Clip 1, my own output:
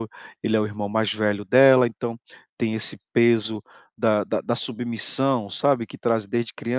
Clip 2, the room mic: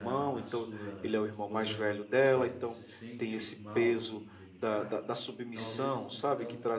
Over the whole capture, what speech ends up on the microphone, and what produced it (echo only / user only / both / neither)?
both